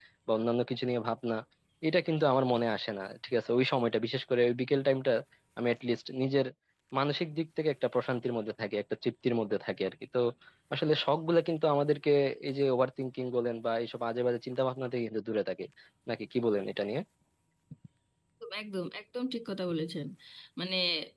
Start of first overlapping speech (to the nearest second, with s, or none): none